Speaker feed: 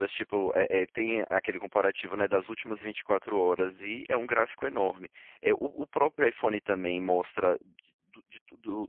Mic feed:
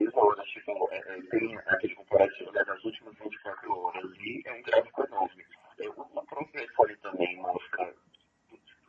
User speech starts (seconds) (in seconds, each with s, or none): none